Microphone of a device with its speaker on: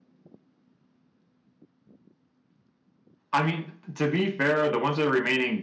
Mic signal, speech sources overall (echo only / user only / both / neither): user only